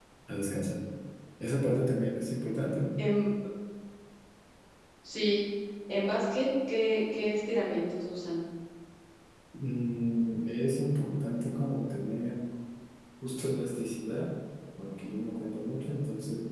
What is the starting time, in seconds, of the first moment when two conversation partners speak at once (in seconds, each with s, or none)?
none